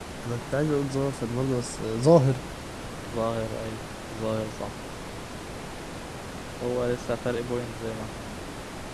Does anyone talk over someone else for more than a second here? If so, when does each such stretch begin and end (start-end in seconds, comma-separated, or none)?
none